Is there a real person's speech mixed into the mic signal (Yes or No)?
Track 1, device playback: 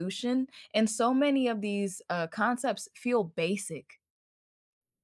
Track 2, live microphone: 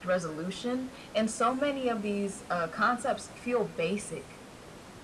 No